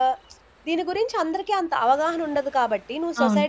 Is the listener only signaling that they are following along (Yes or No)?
Yes